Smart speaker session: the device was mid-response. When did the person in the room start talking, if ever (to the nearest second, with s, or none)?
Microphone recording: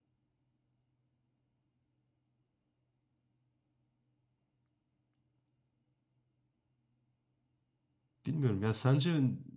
8 s